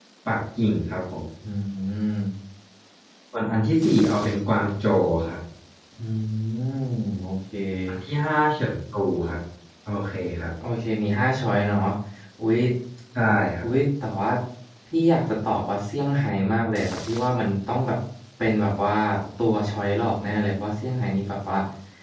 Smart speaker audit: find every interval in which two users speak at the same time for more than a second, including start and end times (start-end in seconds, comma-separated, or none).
none